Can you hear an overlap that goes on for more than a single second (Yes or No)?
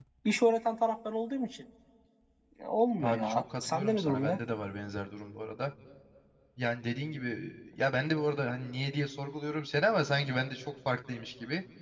Yes